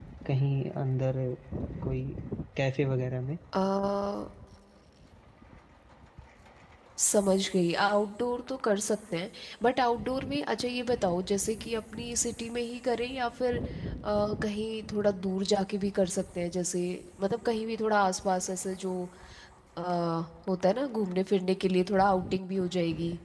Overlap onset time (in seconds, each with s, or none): none